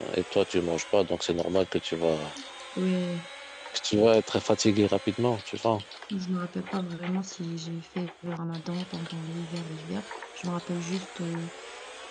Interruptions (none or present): none